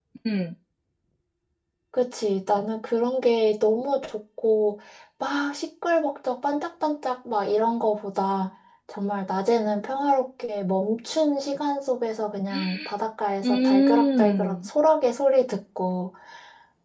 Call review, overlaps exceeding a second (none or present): present